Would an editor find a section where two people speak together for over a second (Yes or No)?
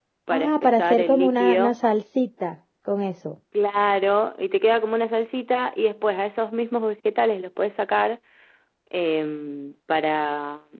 Yes